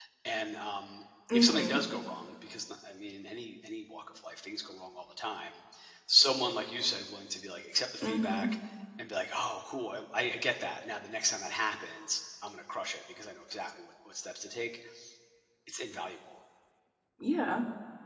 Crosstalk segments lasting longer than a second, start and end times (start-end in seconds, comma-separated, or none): none